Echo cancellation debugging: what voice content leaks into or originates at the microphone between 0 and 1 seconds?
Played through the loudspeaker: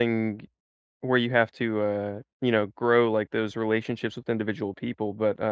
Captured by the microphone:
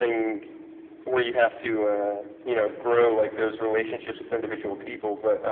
echo only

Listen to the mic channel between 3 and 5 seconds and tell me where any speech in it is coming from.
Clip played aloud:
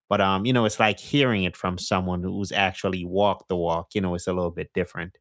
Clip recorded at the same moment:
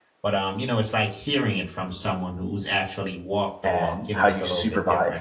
both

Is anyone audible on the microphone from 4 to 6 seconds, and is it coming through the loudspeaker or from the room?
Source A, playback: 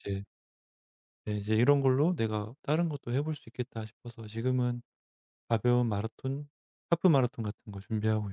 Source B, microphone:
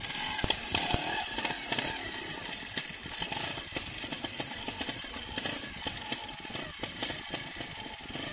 neither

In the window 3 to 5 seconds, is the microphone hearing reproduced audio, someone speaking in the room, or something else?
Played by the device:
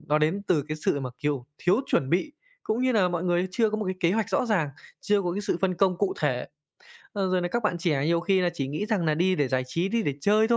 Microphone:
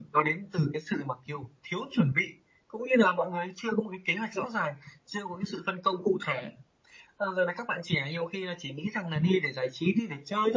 echo only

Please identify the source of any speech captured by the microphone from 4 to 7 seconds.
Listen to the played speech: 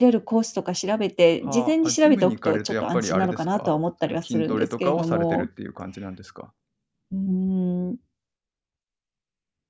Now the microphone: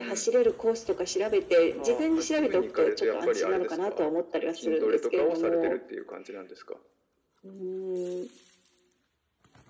echo only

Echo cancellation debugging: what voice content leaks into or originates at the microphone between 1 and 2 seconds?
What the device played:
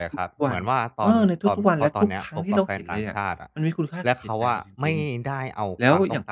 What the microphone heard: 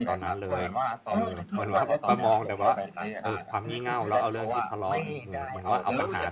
both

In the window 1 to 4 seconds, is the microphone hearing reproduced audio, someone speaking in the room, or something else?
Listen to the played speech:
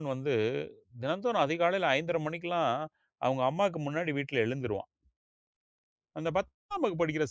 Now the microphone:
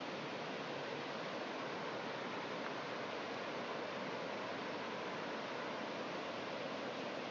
neither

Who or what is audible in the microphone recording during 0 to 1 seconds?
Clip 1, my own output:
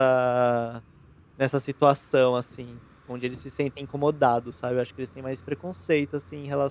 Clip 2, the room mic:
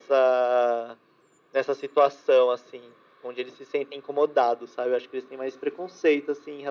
echo only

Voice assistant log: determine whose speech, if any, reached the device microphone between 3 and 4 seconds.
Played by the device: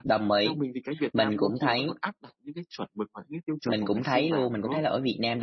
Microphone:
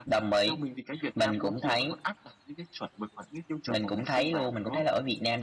echo only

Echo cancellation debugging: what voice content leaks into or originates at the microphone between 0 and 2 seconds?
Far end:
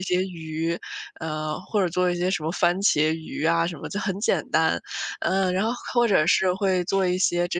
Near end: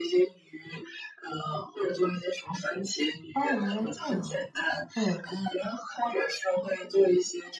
echo only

